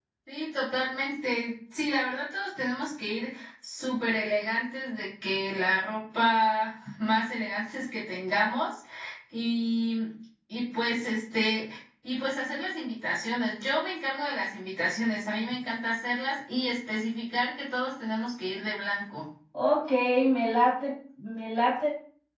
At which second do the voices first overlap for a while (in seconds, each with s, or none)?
none